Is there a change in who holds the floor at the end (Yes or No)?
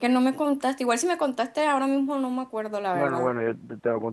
Yes